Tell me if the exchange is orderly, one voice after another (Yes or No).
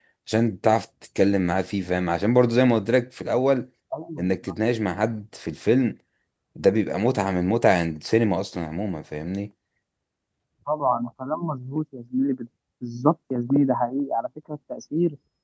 Yes